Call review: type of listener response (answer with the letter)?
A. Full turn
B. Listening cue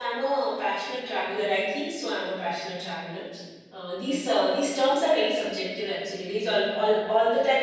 B